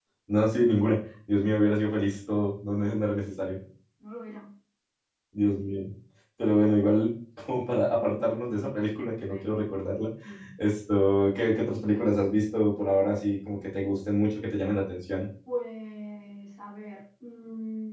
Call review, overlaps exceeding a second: none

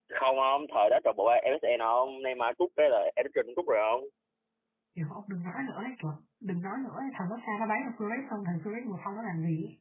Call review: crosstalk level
none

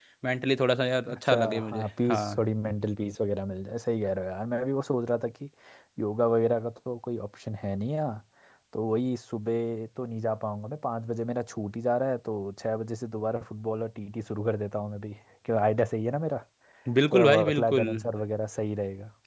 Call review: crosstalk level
present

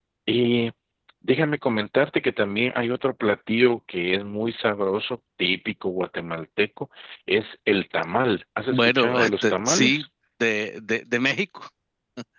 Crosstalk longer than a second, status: present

